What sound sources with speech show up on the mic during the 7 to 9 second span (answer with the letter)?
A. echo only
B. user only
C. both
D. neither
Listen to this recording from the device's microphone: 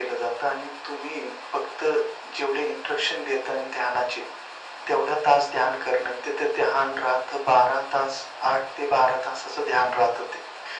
A